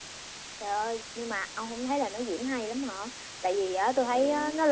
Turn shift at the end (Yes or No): No